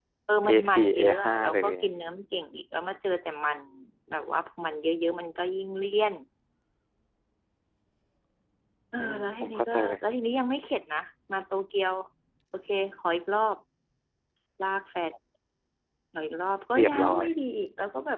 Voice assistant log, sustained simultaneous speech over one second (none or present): present